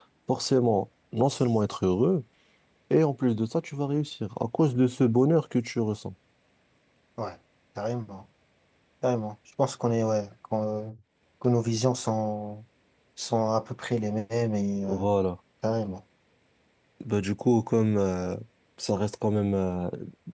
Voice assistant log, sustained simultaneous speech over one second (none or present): none